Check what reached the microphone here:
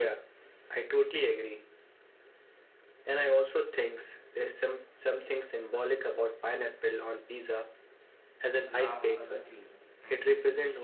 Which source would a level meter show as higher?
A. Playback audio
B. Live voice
A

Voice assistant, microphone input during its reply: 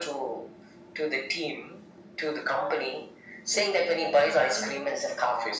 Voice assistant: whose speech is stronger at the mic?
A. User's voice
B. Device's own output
B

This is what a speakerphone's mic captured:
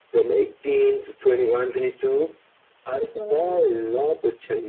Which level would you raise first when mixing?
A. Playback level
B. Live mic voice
B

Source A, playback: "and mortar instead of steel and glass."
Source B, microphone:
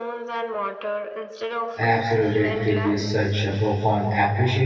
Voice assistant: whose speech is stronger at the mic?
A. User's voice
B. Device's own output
A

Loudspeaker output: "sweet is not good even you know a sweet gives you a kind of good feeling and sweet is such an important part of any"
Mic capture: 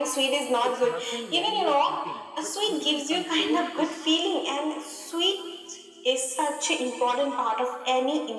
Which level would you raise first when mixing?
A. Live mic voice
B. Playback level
A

